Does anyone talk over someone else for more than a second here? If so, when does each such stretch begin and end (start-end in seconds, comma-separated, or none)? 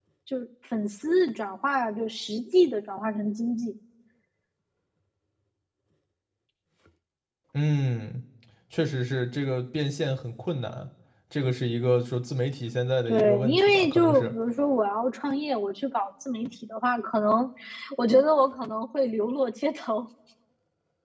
13.1-14.3